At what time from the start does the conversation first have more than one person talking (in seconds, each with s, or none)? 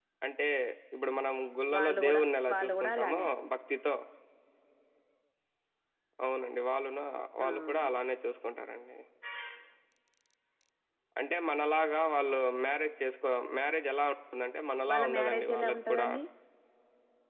1.7 s